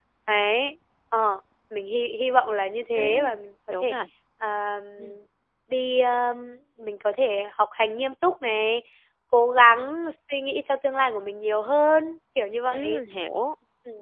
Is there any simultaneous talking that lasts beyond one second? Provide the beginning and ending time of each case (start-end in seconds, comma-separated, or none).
none